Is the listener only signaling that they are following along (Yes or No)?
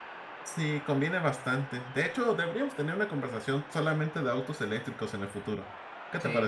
No